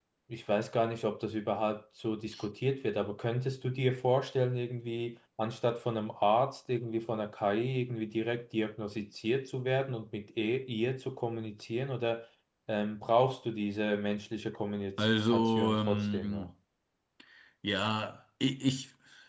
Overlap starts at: 15.0 s

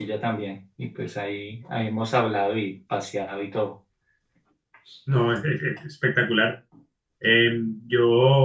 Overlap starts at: none

